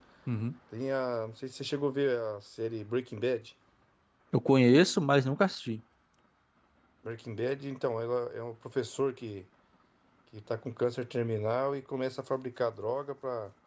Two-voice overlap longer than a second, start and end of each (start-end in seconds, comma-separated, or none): none